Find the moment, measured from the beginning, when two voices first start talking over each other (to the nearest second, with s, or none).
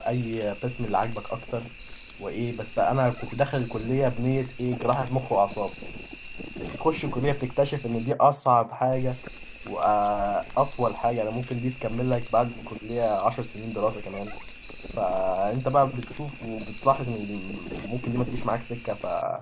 none